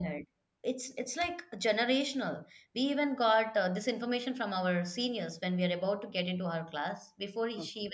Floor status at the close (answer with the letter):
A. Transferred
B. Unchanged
B